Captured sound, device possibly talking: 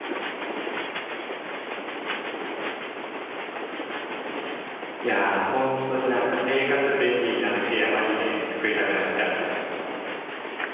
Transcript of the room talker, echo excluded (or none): いやー、本当になんか生活便利になる系やマジで作りたくなっちゃう。